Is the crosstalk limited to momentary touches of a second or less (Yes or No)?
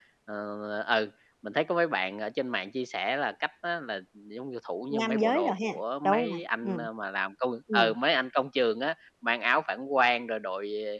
No